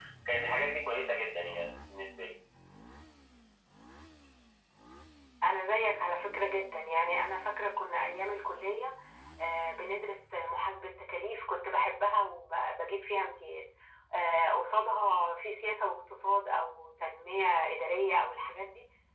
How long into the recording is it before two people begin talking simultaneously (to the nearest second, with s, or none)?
none